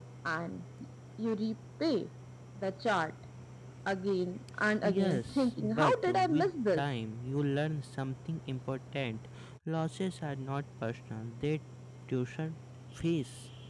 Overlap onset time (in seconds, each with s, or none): 4.8 s